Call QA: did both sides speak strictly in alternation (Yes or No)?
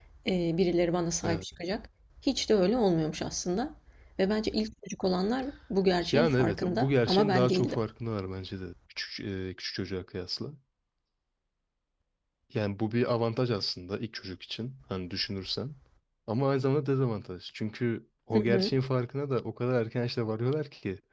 No